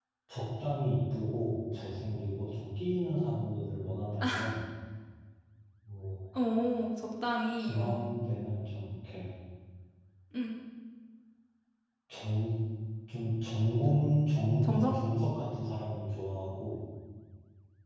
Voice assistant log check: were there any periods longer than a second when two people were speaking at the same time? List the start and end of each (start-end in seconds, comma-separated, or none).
none